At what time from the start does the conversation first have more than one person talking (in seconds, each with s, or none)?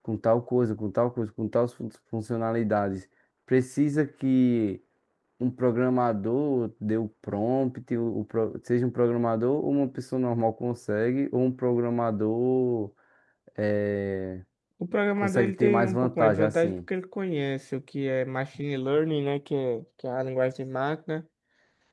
15.2 s